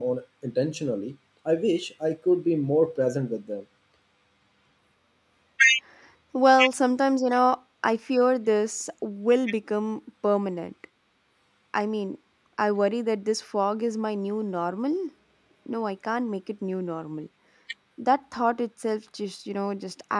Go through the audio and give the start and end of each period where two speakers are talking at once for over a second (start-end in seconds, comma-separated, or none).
none